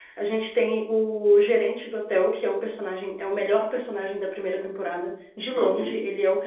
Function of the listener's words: listening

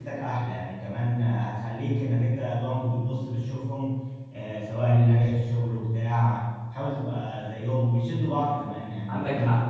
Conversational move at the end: listening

